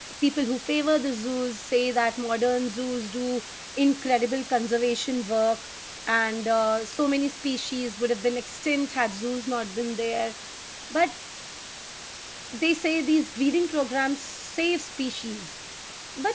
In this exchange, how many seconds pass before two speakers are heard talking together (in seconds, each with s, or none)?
none